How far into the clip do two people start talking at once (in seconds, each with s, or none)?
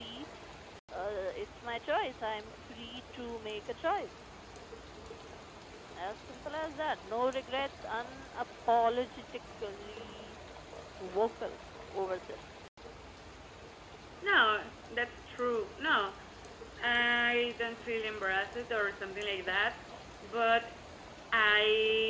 none